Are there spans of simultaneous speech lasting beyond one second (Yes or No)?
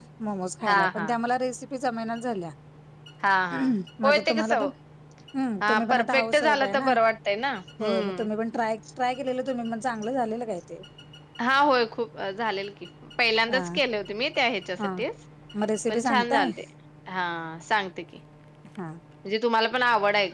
Yes